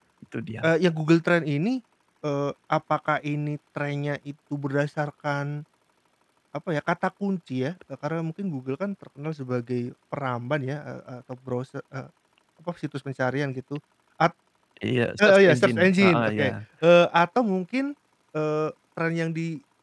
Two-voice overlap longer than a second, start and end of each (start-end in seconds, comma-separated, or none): 15.2-16.5